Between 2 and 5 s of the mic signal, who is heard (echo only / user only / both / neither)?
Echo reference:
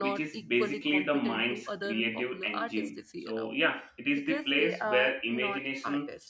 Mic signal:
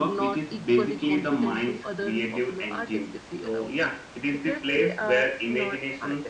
echo only